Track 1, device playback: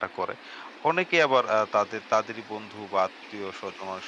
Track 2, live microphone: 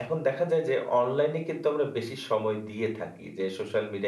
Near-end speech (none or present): present